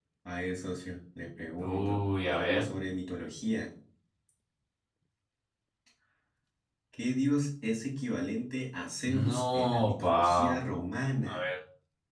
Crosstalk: present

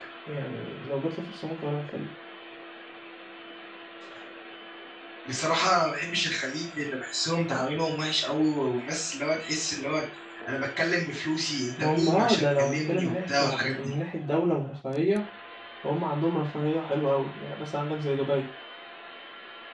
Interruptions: present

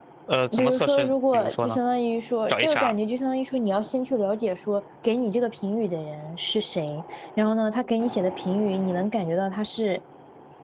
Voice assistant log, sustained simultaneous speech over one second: present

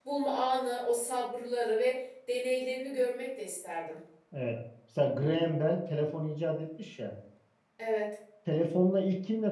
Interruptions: none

